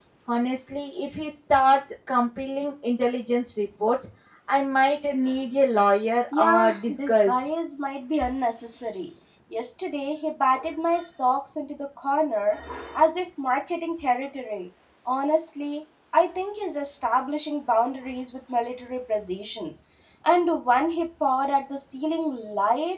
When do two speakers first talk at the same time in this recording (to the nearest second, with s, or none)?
6 s